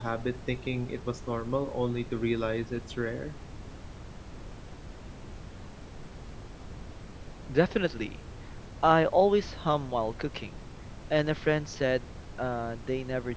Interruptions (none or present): none